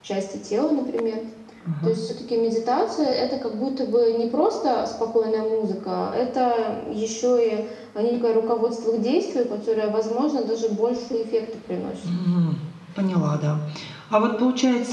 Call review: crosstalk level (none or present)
none